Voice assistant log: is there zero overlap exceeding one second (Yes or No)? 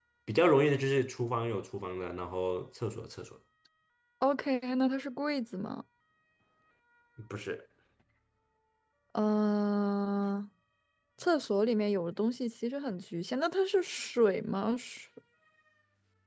Yes